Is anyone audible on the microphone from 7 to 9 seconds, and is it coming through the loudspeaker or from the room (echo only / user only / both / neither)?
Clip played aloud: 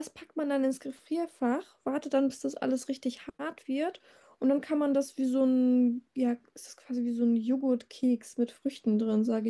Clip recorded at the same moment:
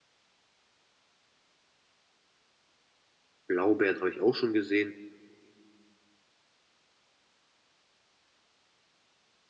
neither